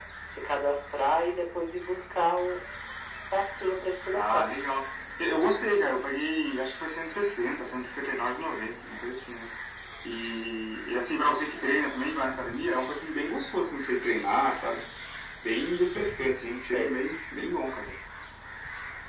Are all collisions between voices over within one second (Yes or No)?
Yes